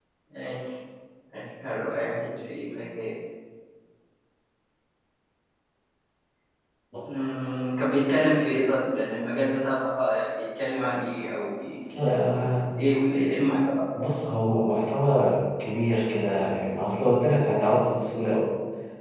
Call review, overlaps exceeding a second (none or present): none